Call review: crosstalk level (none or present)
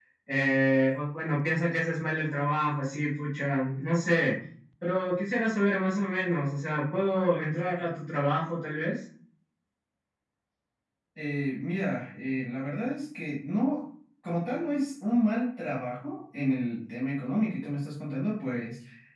none